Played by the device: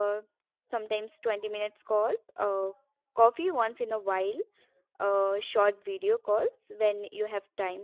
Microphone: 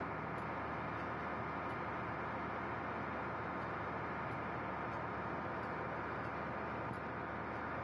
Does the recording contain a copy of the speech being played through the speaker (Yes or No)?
No